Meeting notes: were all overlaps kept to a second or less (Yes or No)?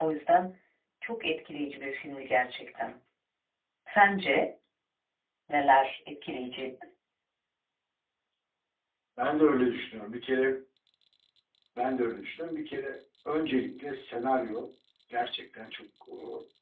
Yes